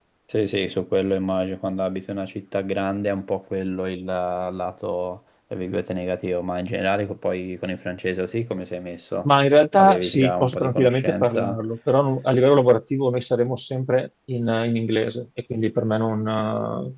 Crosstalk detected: Yes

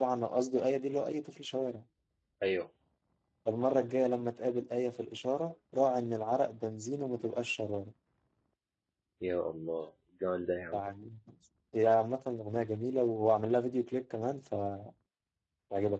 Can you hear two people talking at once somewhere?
No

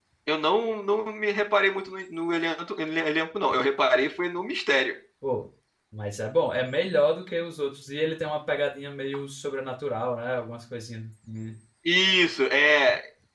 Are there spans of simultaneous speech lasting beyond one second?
No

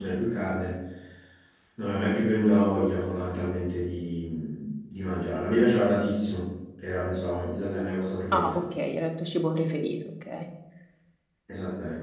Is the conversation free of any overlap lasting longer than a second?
Yes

